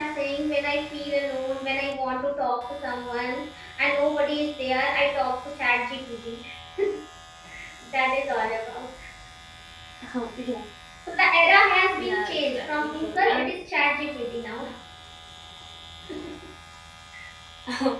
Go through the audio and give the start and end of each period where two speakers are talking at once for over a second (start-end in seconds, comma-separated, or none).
11.9-13.6